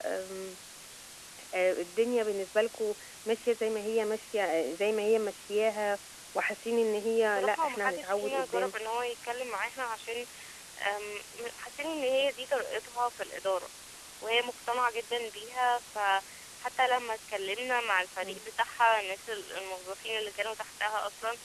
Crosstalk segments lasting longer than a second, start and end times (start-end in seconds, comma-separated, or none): 7.2-8.7